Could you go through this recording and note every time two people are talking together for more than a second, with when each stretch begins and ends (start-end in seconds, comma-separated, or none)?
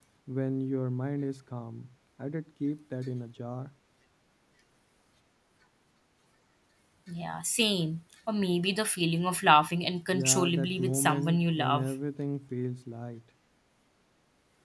10.1-11.9